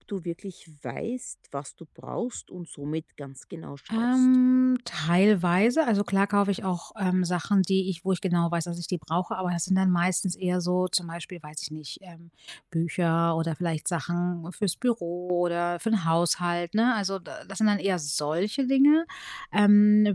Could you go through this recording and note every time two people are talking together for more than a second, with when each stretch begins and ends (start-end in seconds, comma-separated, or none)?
none